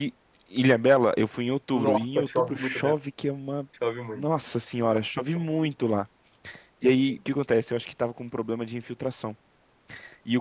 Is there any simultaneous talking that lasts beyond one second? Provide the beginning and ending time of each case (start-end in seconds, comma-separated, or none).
1.7-2.9